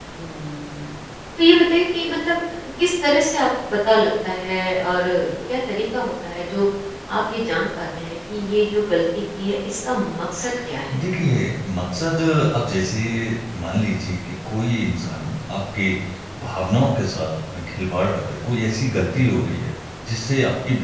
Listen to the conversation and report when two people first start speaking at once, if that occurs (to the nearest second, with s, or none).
none